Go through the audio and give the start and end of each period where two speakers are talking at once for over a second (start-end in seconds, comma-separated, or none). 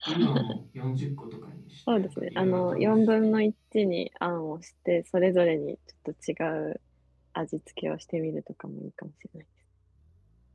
1.9-3.3